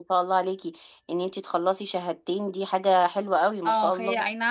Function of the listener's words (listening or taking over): taking over